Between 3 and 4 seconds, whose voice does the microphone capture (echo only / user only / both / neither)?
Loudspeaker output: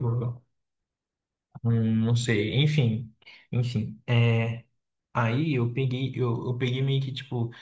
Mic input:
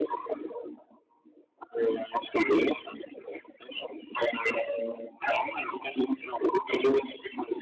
echo only